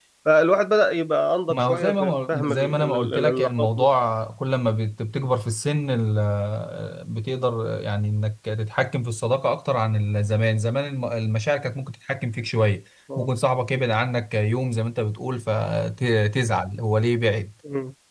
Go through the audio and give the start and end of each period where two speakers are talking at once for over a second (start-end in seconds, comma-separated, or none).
1.5-3.9